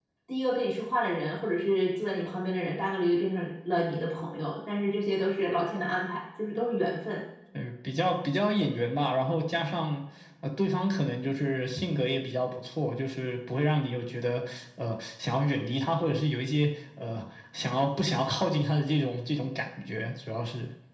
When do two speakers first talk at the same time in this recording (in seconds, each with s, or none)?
none